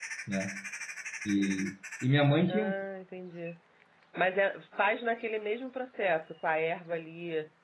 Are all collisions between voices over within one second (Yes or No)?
Yes